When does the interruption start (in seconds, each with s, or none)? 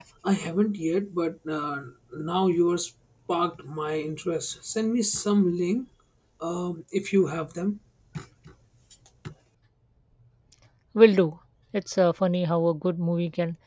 none